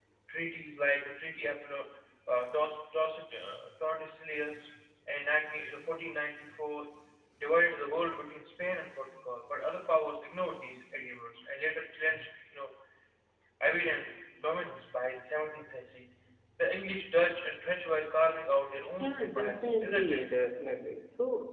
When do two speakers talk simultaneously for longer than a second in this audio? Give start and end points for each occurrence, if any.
19.1-20.2

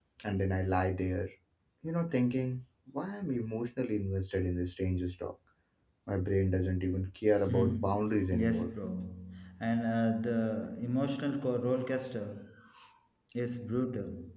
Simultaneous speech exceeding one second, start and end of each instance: 7.5-8.7

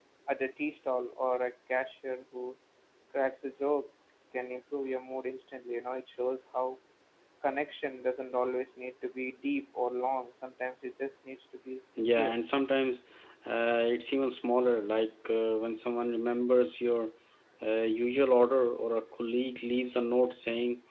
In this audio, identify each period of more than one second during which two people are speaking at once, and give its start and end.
none

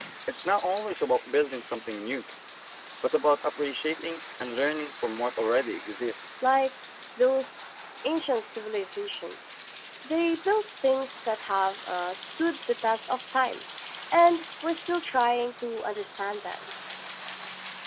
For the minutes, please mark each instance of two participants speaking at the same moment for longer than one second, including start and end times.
none

